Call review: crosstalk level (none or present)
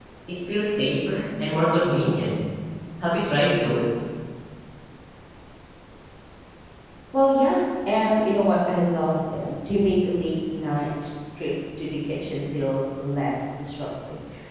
none